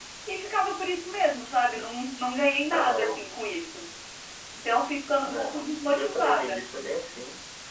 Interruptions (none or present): present